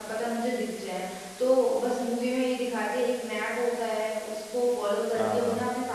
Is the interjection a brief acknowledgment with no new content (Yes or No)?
Yes